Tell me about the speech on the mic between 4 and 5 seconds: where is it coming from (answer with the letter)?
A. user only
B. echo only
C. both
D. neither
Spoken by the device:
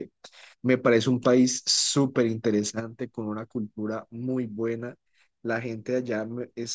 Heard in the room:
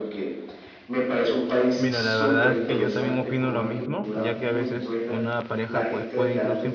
C